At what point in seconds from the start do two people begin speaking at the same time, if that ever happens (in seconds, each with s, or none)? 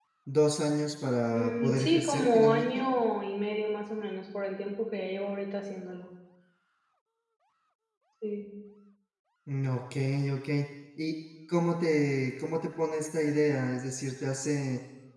1.3 s